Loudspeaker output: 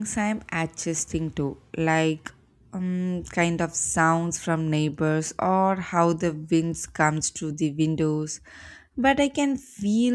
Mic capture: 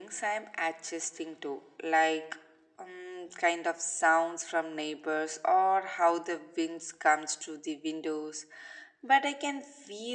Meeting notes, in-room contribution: none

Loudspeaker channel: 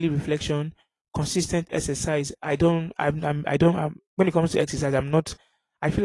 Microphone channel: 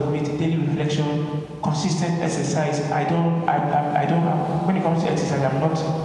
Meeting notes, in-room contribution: none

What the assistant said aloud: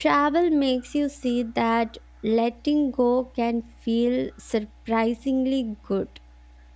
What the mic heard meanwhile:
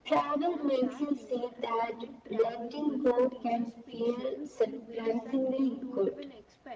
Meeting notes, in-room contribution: present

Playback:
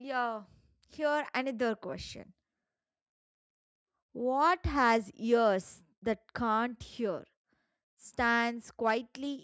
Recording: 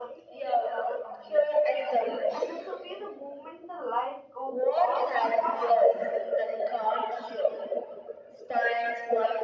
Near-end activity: present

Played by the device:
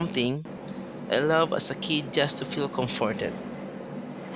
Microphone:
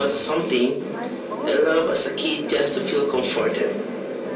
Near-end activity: present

